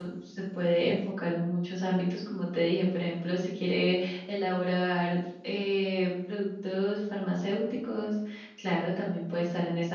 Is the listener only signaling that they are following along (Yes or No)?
Yes